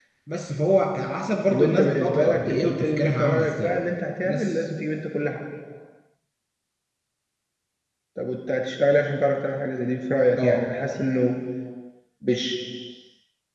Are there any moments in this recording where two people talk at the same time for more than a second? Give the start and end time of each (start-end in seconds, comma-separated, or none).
1.5-3.7